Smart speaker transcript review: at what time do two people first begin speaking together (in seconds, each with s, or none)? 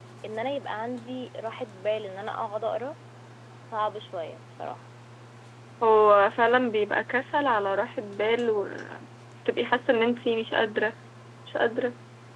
none